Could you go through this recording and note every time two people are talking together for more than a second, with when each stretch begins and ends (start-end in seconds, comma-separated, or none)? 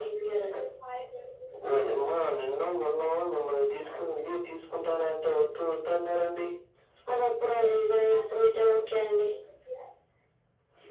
none